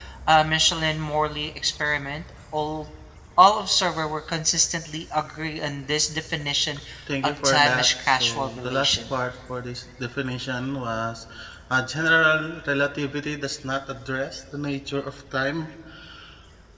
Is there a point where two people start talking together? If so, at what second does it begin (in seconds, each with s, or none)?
7.2 s